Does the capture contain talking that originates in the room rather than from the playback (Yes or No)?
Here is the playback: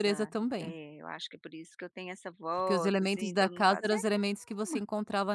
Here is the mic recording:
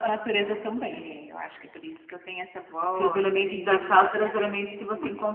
No